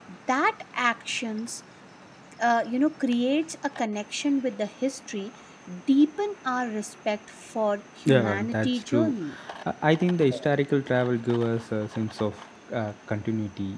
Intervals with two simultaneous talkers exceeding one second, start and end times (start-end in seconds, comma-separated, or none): 8.0-9.3